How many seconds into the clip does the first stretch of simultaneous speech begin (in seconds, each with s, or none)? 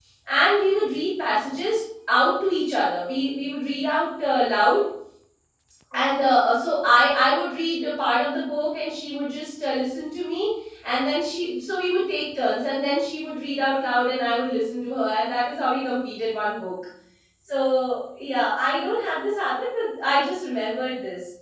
none